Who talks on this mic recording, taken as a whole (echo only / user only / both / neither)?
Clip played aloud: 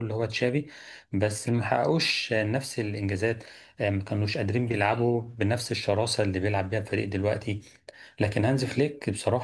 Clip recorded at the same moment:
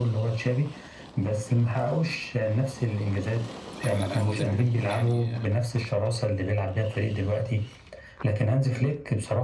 both